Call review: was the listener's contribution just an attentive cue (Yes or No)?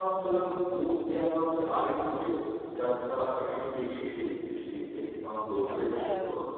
Yes